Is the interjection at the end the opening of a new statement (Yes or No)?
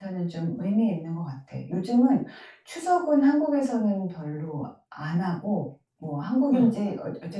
No